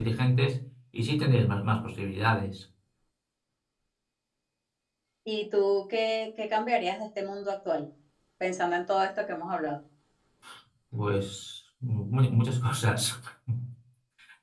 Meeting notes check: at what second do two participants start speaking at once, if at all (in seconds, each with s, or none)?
none